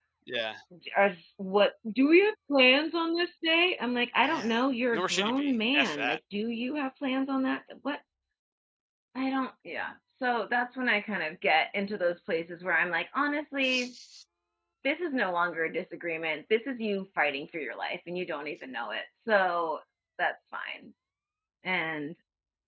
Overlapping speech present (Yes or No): Yes